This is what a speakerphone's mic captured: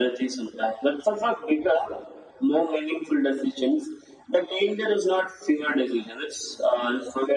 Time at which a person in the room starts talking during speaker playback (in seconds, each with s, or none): none